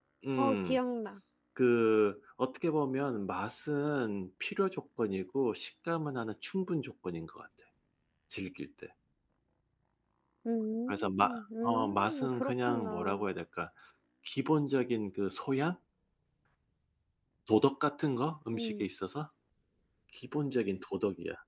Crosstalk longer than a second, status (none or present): present